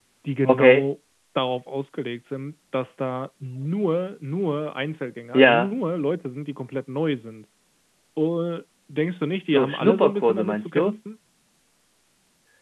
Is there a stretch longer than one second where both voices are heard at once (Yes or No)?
Yes